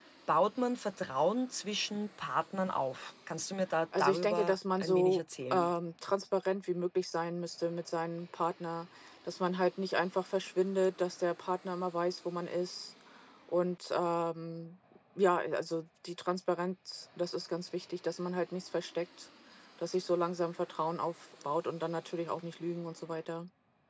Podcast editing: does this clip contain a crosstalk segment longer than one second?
Yes, from 3.9 s

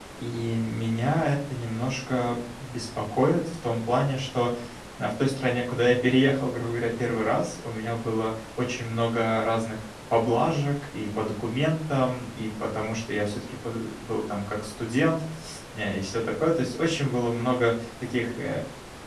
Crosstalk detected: No

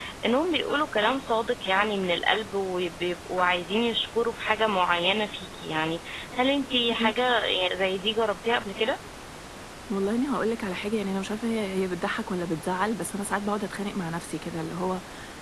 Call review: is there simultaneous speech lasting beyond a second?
No

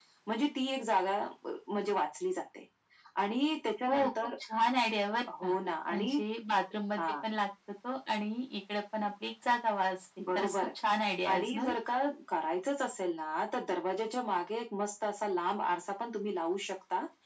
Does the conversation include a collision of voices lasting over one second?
No

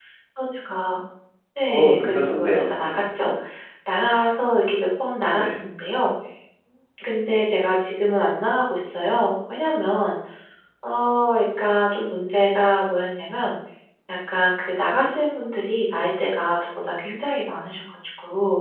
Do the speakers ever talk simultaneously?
Yes, from 1.7 s

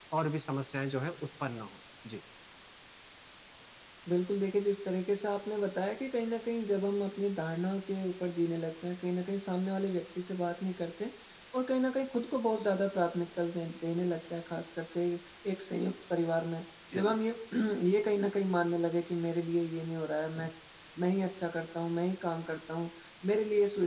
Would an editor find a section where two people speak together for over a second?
No

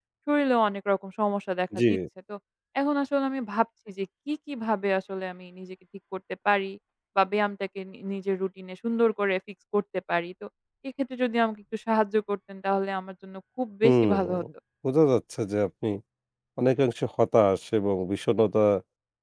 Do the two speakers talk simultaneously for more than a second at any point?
No

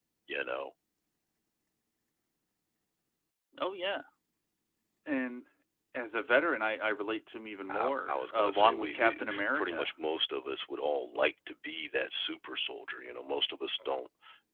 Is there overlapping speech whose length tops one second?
Yes, from 7.7 s

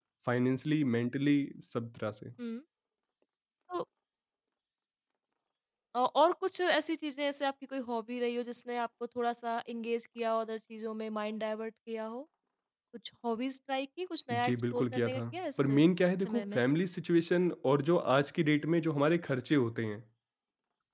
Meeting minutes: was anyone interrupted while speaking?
Yes, from 14.3 s

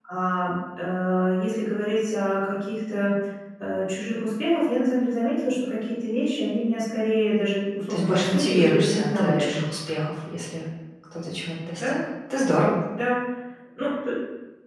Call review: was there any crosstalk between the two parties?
Yes, from 7.9 s

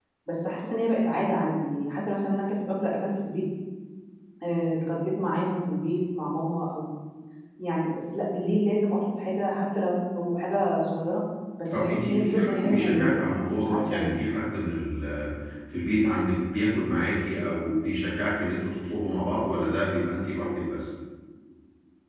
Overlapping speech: Yes, from 11.7 s

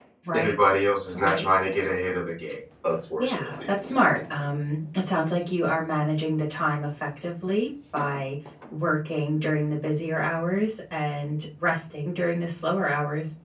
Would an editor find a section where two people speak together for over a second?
No

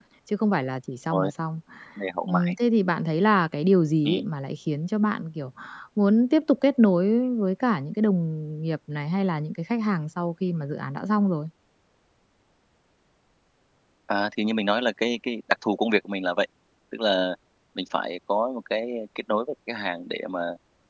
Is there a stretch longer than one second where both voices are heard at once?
No

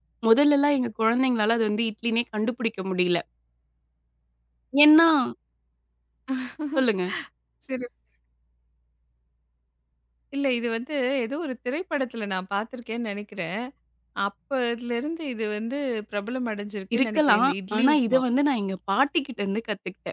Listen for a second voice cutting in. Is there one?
Yes, from 16.9 s

